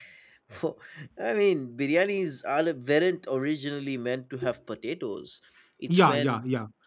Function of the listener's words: taking over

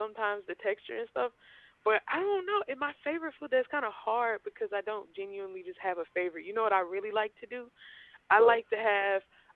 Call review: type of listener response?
listening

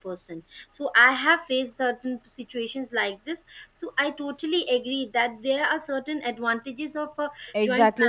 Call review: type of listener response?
taking over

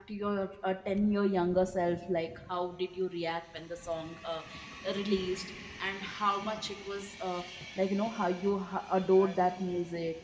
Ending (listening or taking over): listening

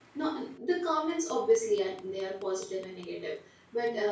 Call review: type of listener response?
listening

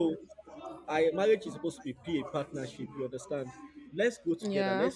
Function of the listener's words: listening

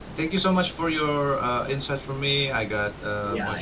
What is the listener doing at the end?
taking over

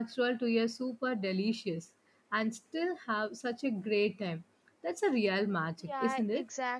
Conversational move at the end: taking over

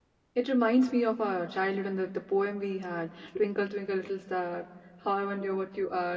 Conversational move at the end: listening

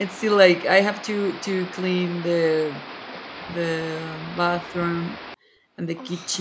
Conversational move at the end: listening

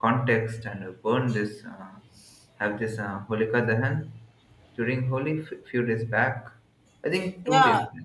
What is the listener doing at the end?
taking over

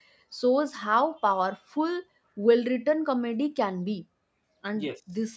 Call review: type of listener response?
listening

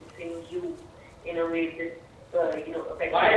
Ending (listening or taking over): taking over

